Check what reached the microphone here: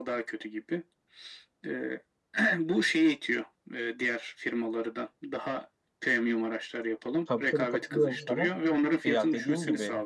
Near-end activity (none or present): present